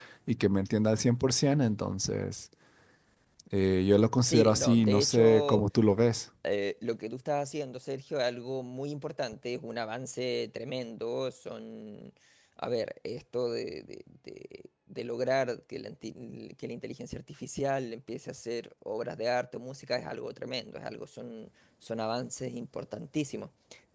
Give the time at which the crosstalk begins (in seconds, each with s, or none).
4.2 s